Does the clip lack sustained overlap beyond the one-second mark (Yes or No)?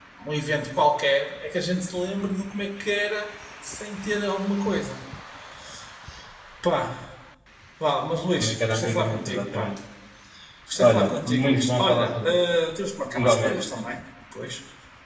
No